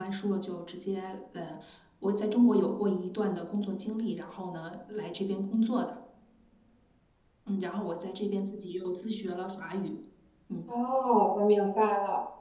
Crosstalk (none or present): none